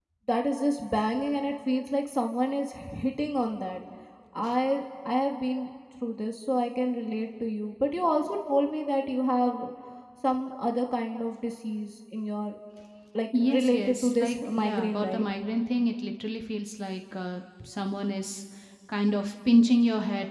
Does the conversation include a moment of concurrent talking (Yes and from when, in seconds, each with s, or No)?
Yes, from 13.4 s